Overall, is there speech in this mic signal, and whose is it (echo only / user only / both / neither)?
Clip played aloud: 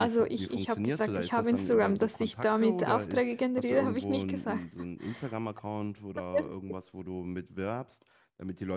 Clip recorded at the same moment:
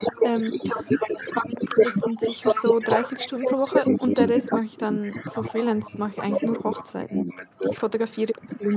both